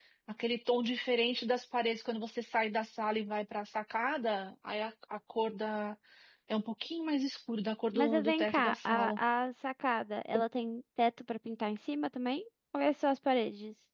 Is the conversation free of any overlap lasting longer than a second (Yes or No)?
No